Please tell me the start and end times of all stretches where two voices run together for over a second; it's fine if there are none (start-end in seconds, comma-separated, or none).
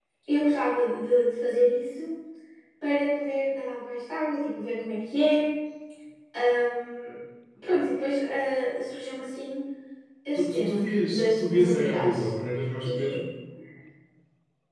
10.3-12.3